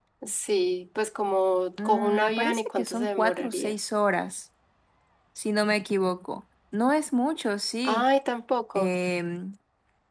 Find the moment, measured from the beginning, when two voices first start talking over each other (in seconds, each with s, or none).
1.8 s